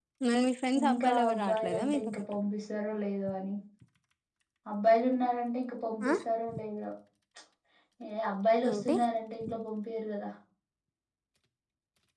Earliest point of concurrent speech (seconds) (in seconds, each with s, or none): 0.8 s